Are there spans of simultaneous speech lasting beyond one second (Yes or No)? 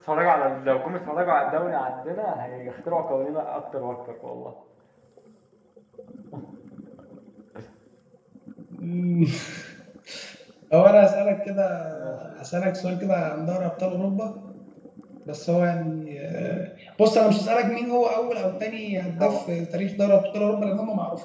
No